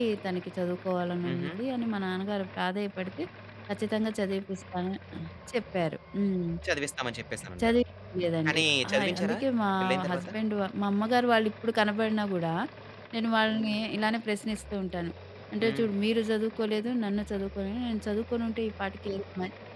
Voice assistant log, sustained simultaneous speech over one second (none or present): none